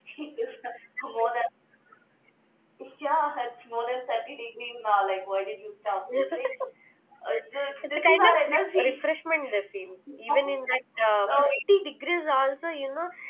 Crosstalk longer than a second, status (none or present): present